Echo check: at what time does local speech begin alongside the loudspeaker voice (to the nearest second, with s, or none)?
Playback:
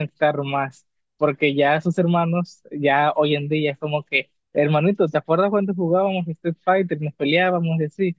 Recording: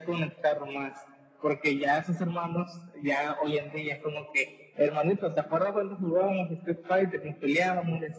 none